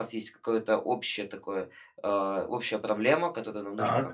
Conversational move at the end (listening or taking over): listening